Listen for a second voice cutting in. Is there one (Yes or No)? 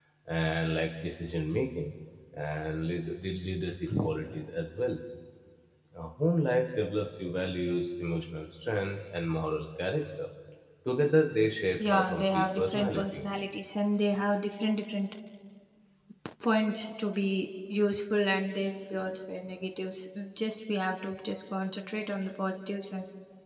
Yes